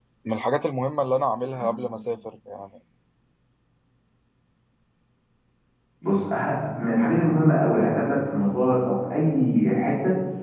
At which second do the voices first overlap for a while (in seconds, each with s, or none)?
none